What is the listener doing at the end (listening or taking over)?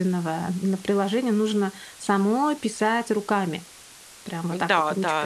taking over